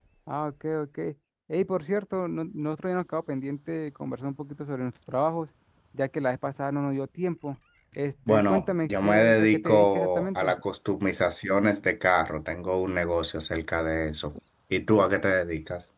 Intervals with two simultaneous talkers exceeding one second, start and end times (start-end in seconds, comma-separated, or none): 8.3-10.6